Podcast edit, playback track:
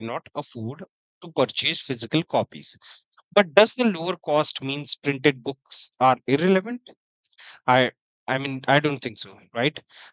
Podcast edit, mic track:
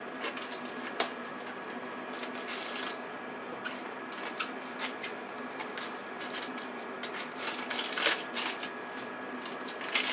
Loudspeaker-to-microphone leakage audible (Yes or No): No